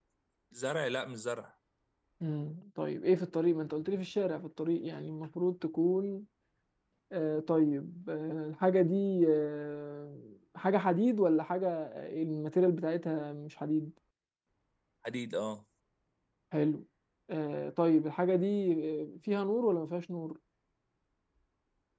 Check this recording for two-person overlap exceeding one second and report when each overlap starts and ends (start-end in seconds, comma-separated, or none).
none